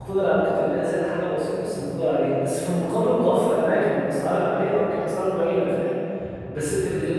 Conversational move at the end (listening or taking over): taking over